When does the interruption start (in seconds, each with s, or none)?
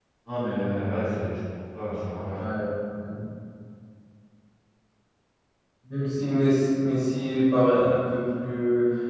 none